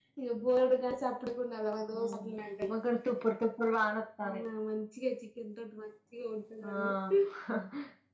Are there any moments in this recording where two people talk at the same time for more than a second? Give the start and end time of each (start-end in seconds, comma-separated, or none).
none